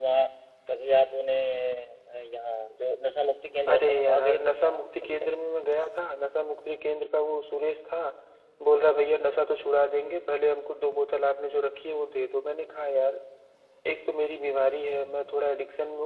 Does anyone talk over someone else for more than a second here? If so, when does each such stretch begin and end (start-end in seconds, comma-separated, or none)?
3.7-5.3